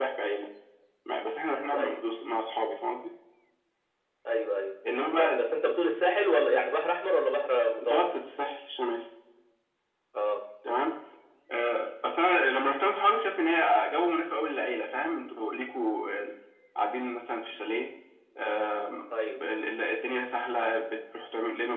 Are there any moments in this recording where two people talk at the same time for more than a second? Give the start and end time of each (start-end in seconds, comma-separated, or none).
none